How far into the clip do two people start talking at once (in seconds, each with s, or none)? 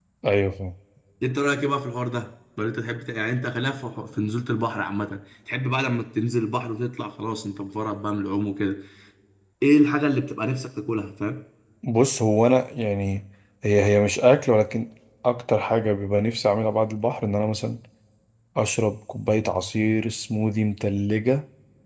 none